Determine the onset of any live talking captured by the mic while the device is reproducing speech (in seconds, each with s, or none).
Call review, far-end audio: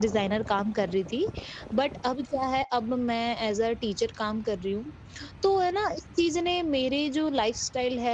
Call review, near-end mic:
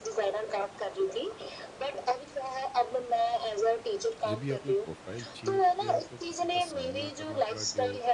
4.3 s